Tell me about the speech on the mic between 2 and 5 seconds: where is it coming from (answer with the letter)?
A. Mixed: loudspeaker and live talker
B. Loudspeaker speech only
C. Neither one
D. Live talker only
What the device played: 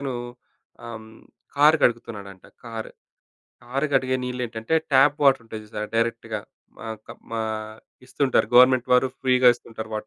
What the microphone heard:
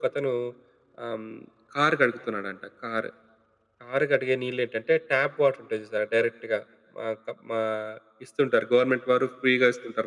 B